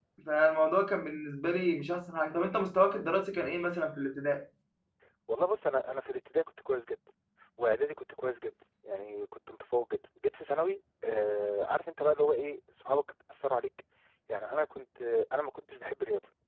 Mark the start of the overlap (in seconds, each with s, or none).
none